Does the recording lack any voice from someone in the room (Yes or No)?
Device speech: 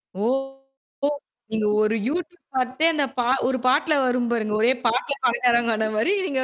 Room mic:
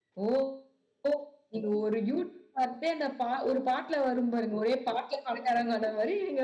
Yes